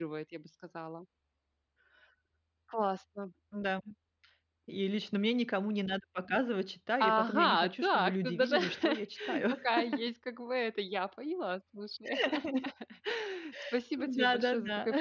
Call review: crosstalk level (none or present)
present